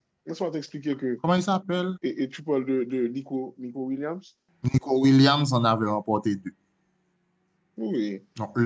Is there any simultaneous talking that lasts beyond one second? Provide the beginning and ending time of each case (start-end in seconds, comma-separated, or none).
none